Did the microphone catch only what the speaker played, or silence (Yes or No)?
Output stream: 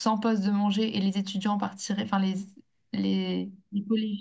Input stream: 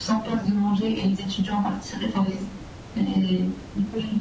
Yes